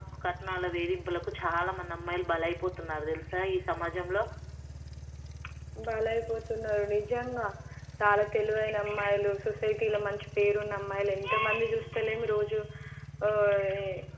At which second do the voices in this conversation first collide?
none

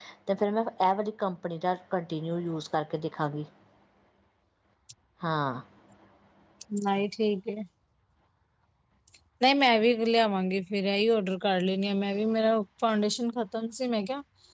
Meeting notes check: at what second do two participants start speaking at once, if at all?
none

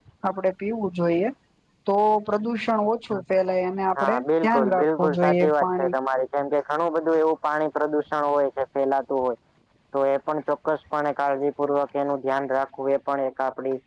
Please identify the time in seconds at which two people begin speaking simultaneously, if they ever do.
4.0 s

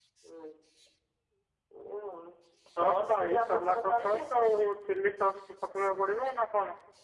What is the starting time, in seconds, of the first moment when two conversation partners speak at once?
2.8 s

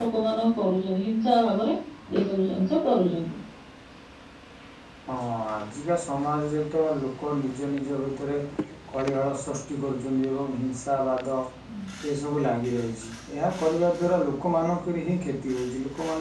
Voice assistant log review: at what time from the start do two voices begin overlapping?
none

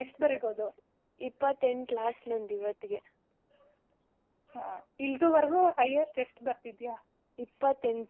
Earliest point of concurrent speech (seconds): none

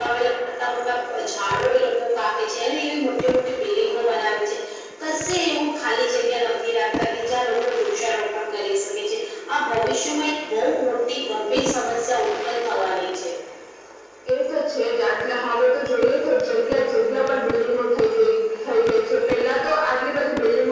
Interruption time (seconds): none

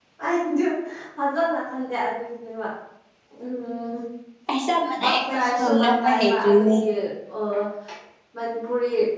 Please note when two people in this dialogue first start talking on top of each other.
5.0 s

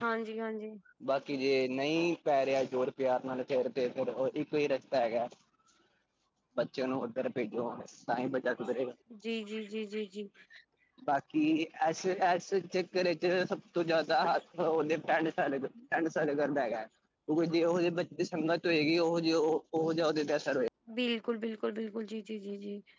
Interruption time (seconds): none

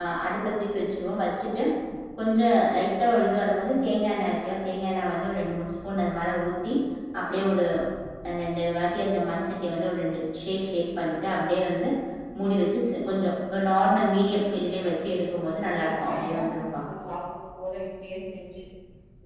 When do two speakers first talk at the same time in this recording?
15.2 s

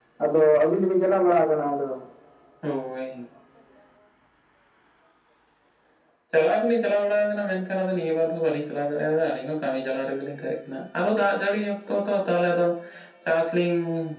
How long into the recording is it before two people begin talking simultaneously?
none

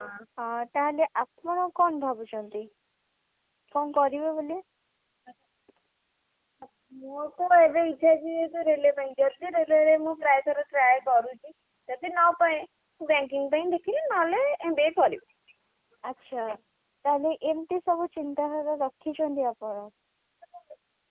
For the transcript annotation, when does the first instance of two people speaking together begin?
none

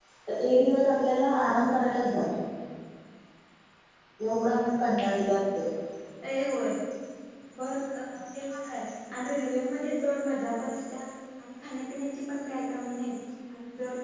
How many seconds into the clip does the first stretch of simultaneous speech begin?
none

